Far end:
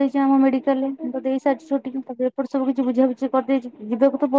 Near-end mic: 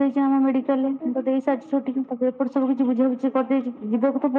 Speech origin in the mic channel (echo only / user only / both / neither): echo only